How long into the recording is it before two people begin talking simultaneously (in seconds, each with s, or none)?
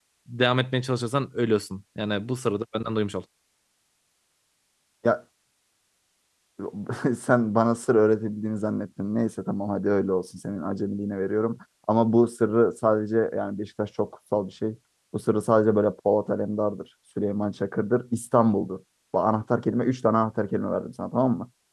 none